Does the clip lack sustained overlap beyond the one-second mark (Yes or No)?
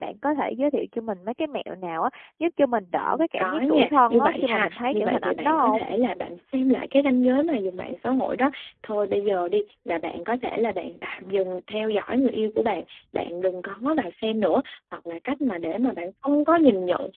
No